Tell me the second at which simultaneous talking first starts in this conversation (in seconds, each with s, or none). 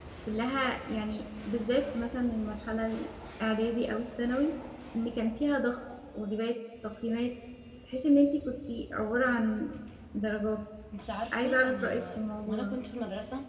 11.3 s